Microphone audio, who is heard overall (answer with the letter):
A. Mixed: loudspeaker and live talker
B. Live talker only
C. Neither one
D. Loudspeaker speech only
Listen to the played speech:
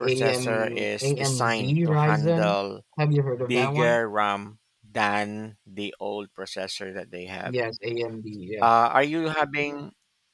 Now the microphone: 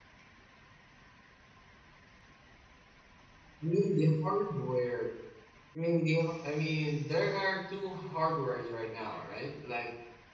B